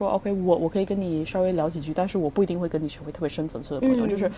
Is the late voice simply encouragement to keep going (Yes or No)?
Yes